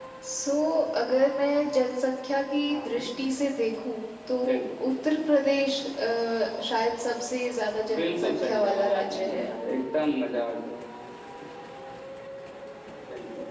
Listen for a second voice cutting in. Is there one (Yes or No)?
Yes